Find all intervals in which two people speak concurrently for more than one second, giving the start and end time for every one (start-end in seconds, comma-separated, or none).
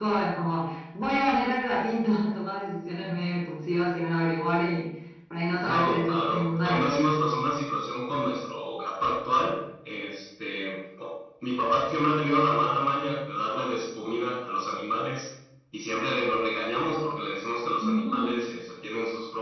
5.6-7.0